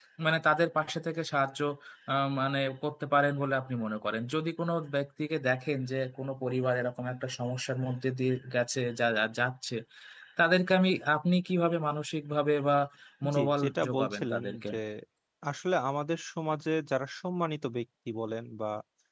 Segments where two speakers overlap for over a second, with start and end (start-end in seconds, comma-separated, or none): 13.3-14.6